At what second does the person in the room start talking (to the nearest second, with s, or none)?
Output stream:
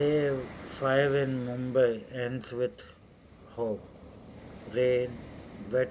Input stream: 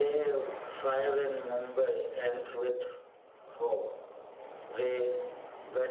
none